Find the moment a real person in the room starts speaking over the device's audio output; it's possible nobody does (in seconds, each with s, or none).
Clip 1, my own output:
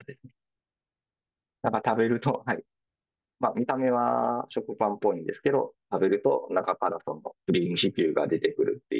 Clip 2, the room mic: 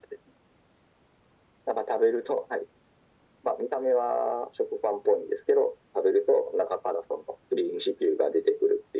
none